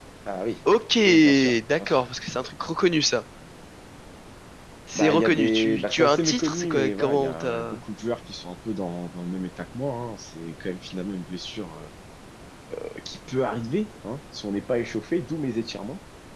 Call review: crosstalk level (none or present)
present